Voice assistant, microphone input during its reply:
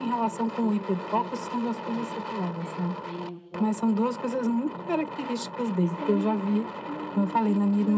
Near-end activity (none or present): present